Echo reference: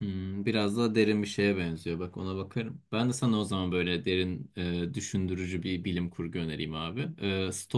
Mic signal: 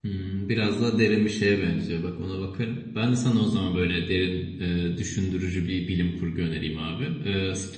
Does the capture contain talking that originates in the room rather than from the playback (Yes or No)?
No